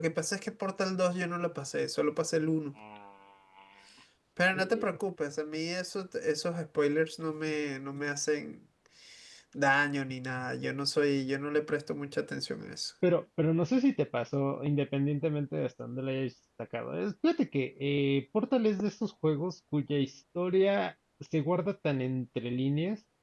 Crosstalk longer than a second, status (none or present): none